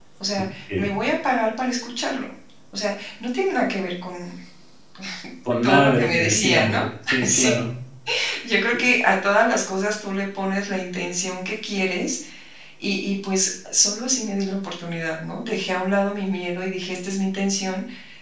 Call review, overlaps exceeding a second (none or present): present